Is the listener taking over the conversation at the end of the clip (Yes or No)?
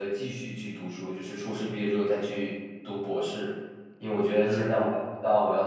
No